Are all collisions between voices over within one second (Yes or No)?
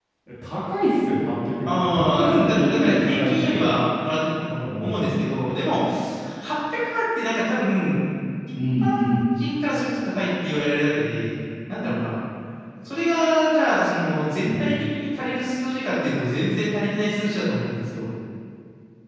No